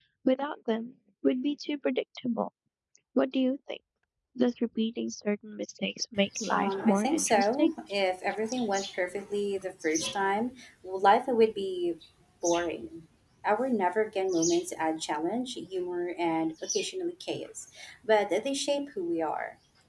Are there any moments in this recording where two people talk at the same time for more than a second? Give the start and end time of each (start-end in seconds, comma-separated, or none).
6.5-7.7